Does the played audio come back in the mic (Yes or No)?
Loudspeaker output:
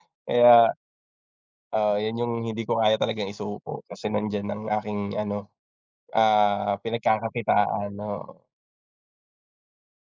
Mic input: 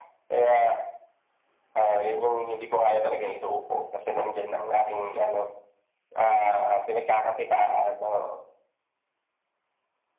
Yes